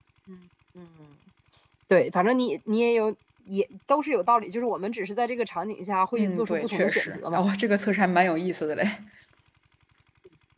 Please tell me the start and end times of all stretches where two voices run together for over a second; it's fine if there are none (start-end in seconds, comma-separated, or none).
6.2-7.4